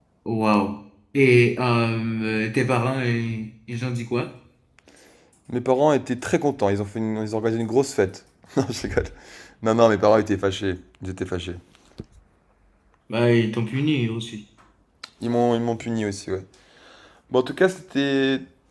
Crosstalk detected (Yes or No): No